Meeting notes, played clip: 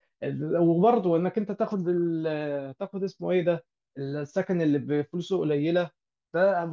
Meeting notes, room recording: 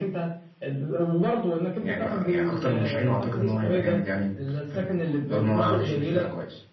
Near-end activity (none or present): present